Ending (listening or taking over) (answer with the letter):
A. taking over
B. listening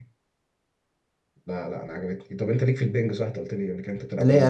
A